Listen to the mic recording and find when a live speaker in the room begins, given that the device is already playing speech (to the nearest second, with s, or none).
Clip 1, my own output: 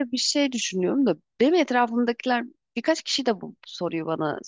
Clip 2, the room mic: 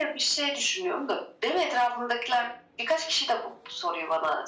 none